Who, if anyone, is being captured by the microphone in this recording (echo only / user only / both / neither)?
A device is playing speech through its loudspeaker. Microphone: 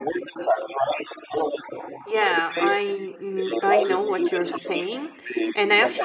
both